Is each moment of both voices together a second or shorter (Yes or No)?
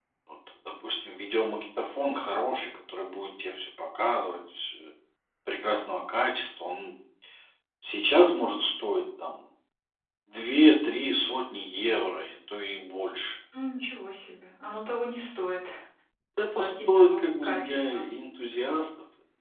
No